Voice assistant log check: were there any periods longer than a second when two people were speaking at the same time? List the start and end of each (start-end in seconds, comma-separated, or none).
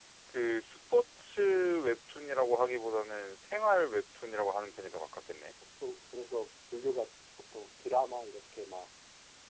none